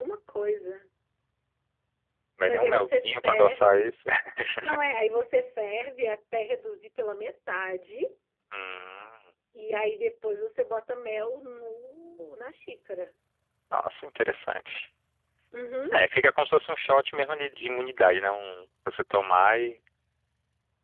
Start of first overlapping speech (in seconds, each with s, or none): 2.5 s